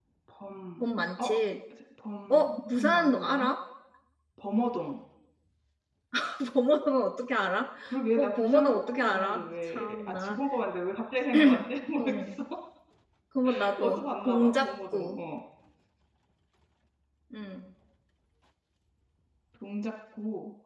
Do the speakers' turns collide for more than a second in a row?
Yes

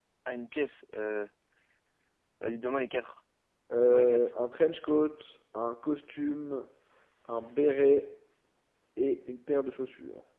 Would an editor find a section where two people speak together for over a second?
No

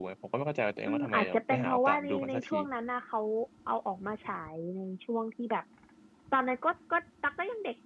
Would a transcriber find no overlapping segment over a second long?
No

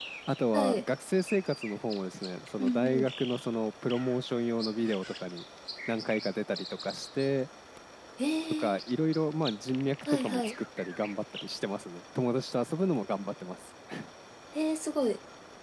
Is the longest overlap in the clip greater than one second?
No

